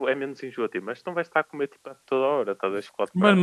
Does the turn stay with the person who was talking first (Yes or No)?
No